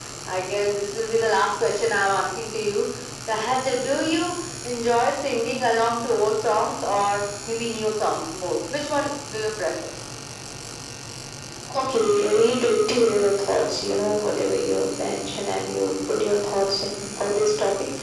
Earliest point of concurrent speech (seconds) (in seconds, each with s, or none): none